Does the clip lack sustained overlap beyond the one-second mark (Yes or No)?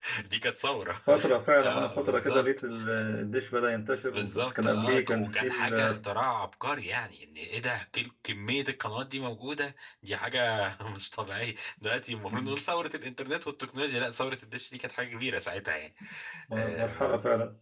No